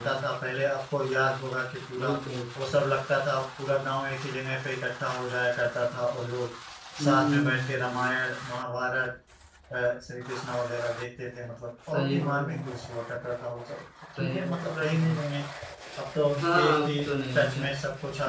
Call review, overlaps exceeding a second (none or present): present